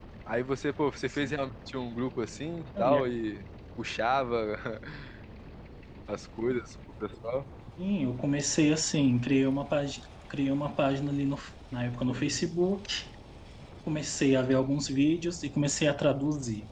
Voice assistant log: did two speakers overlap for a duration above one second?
No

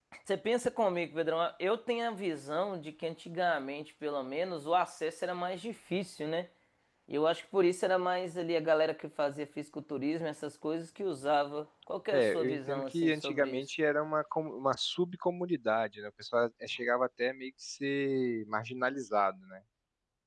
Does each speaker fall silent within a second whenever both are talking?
No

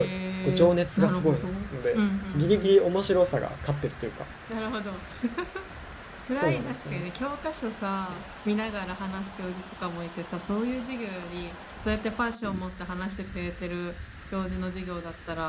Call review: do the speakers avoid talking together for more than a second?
No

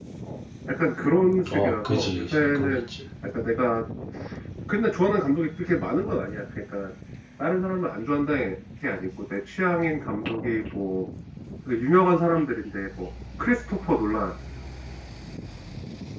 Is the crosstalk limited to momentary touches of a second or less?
No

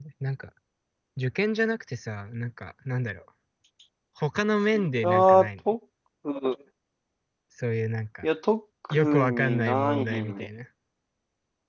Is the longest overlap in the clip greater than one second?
Yes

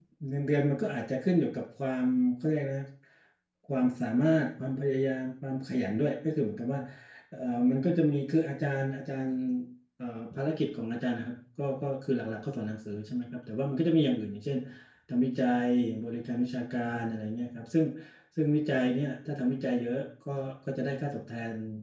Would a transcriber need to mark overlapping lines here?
No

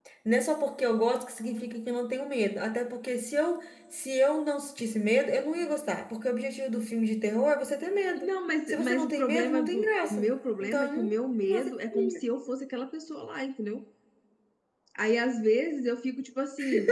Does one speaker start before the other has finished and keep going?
Yes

